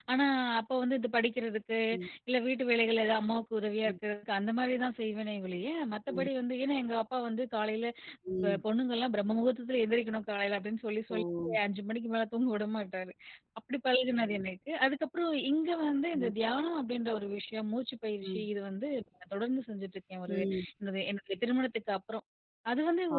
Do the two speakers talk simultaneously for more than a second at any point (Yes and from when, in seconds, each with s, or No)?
No